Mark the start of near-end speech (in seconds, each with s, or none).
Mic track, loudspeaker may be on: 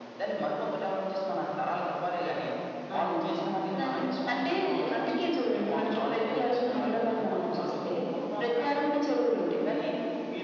none